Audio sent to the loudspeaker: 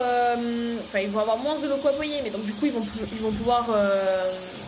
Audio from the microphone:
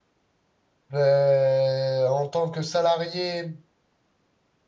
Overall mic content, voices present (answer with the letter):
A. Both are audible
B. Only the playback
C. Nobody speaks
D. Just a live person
D